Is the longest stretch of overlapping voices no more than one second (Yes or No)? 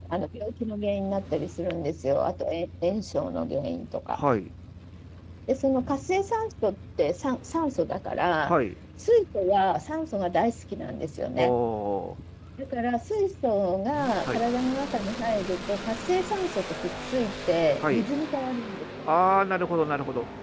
Yes